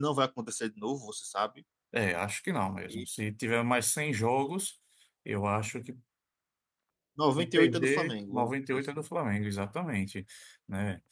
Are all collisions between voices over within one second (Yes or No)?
No